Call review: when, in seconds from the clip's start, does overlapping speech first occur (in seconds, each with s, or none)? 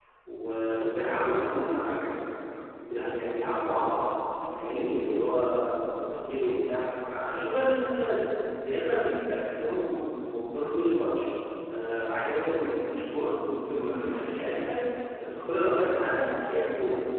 none